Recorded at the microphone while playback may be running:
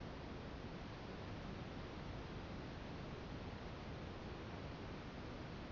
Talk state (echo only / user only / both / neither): neither